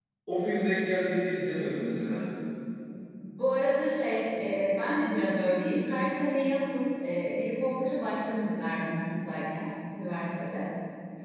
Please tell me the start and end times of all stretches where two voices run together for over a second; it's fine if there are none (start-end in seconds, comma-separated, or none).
none